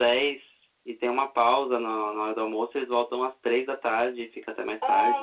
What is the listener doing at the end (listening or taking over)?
taking over